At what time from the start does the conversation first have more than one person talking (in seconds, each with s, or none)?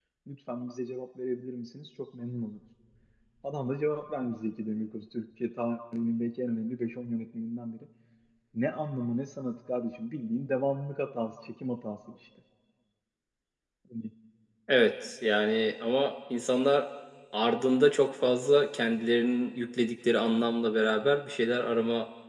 none